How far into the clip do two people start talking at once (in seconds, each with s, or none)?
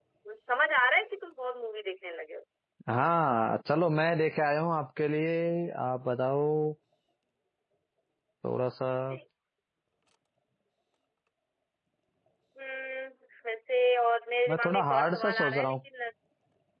14.5 s